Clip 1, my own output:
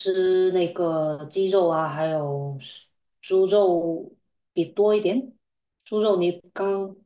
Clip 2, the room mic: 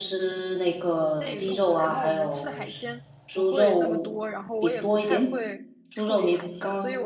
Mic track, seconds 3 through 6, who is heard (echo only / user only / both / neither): both